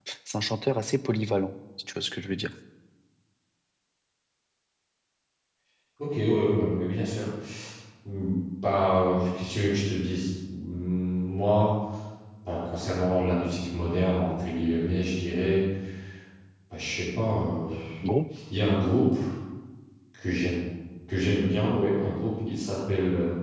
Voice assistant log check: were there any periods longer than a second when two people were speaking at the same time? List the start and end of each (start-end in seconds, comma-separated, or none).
none